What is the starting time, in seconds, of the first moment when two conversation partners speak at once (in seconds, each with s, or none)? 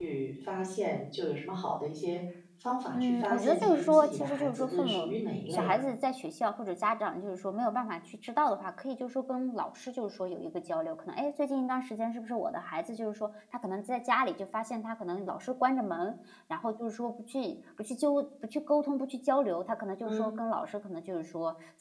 2.9 s